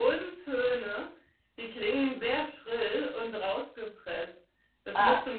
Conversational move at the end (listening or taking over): listening